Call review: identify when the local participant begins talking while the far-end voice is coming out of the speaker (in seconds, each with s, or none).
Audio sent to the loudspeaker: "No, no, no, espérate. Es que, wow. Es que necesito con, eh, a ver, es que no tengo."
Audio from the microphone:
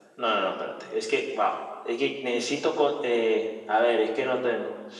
none